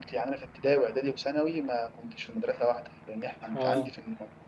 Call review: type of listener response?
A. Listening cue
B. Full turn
A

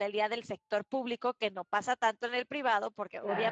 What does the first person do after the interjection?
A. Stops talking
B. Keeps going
B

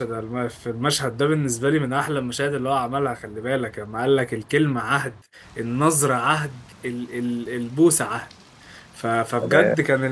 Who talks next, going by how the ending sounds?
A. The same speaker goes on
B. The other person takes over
A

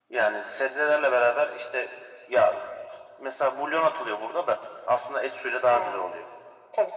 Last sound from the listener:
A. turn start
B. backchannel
A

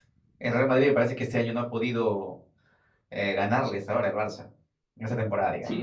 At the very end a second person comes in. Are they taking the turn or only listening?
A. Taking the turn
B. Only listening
A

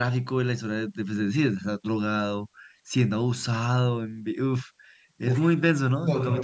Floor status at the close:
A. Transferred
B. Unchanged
A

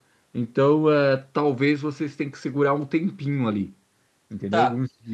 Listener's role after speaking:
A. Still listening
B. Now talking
B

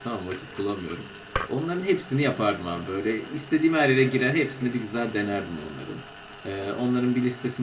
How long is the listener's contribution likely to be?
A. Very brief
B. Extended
A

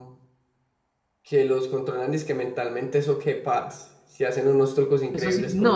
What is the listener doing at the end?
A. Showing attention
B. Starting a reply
B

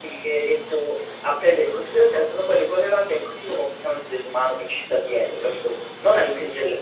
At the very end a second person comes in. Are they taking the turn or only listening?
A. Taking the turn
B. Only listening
B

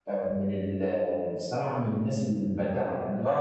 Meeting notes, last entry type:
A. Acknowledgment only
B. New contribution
B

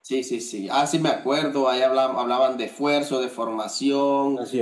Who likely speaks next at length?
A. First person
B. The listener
A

